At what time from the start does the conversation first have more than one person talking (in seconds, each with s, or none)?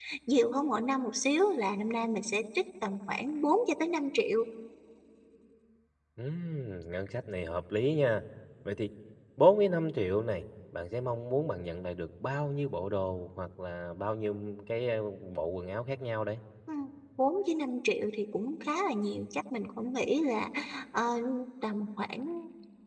none